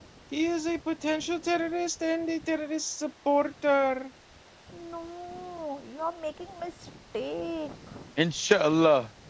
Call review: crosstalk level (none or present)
none